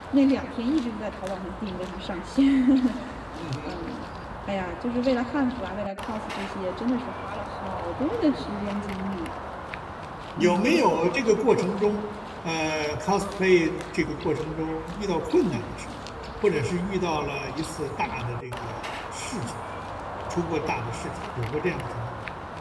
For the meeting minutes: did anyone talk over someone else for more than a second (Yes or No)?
No